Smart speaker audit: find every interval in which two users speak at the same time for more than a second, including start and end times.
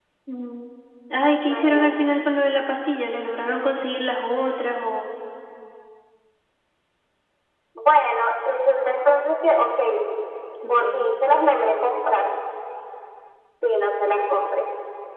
none

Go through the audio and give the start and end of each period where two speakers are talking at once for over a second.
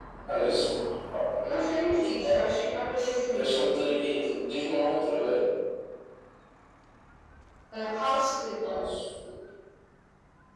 none

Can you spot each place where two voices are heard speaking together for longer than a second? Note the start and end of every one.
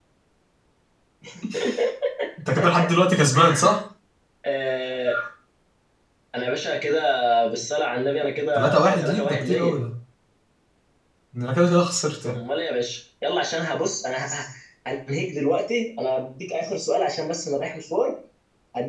8.6-9.8

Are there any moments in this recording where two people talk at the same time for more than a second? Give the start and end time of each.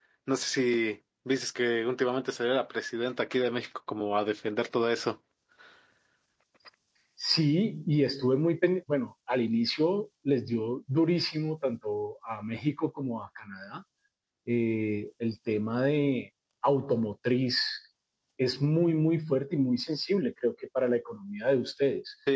none

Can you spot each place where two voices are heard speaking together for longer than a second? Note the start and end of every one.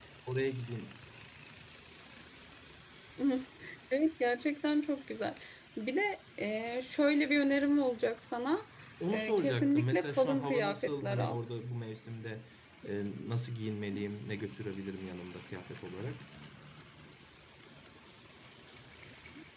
9.1-11.4

